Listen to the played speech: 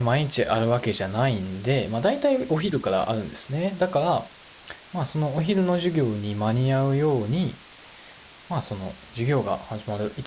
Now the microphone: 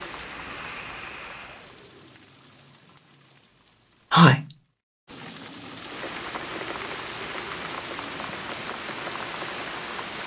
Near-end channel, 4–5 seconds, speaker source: user only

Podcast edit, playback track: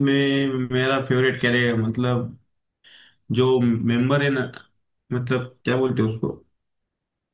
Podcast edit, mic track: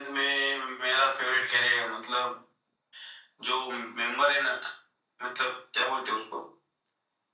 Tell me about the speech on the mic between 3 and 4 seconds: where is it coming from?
echo only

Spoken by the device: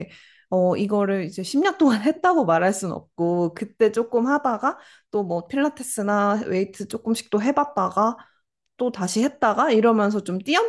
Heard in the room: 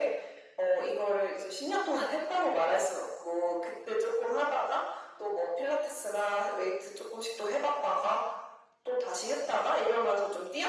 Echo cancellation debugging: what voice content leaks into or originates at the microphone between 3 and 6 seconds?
echo only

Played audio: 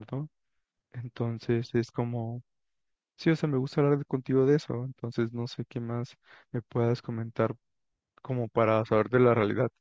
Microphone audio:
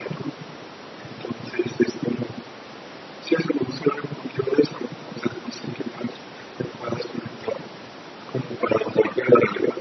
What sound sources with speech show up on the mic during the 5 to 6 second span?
echo only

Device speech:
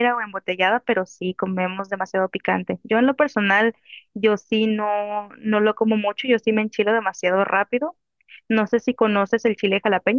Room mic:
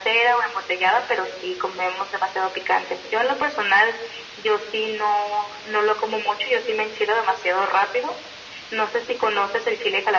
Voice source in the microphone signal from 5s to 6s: echo only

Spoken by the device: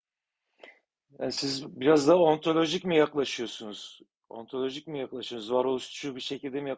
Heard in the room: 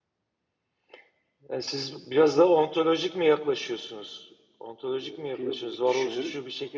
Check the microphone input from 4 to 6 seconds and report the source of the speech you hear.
both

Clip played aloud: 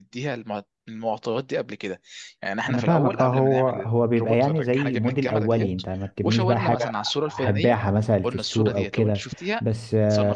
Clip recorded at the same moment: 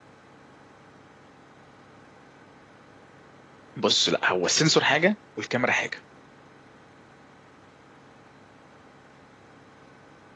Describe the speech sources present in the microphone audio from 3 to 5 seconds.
user only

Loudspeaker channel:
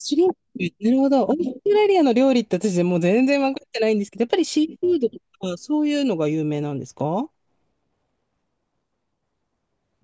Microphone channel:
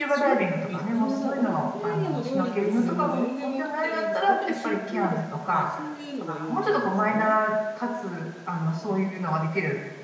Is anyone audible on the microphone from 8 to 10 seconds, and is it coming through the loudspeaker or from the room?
user only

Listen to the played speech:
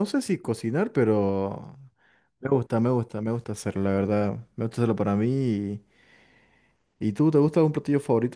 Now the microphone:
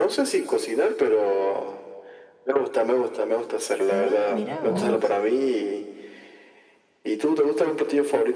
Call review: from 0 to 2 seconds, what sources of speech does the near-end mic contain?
echo only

